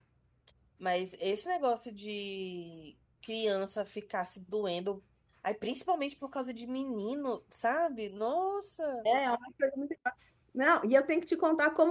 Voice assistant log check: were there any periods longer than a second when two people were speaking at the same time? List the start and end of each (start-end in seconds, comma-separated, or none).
none